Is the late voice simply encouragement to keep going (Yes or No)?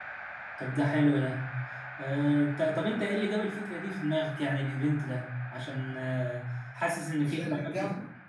No